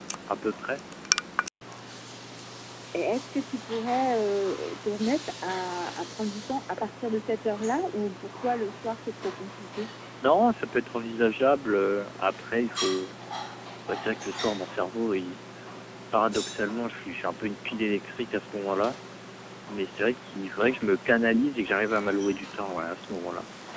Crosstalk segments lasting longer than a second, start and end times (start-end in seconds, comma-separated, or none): none